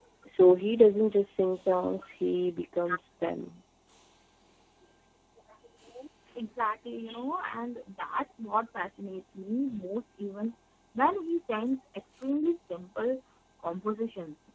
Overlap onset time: none

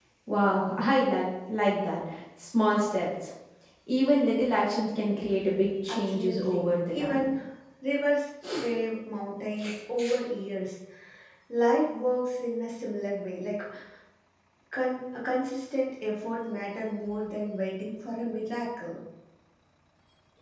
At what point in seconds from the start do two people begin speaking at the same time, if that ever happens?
5.9 s

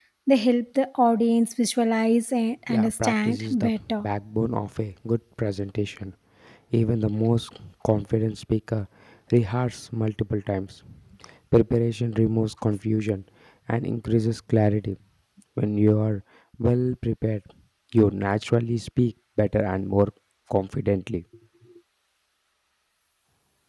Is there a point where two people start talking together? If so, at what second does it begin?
2.7 s

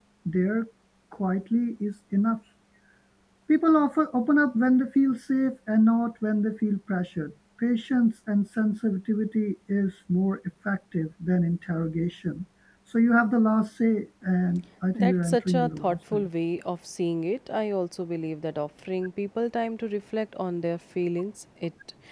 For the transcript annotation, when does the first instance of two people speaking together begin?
14.9 s

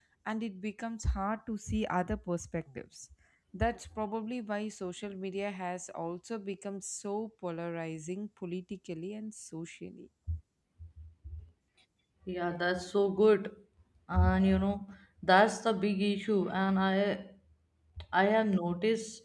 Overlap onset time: none

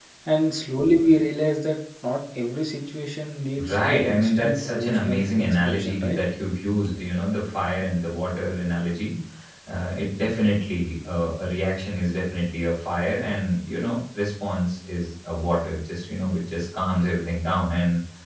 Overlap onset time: 3.6 s

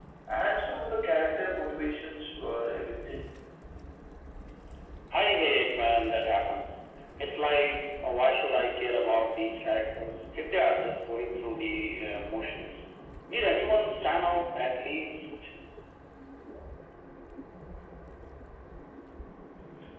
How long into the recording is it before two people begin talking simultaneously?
none

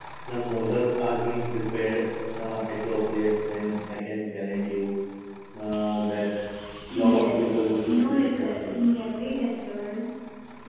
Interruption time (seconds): 6.9 s

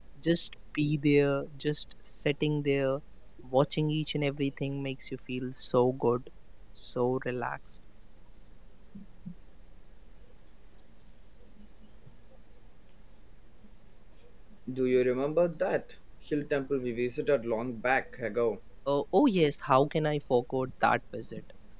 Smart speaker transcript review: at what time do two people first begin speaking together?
none

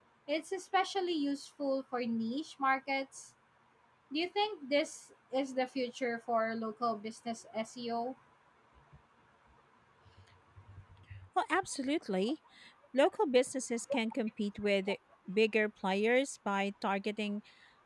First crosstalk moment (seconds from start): none

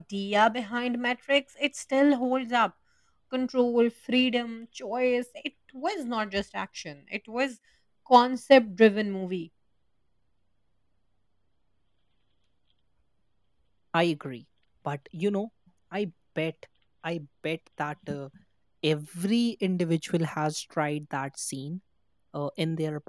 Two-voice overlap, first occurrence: none

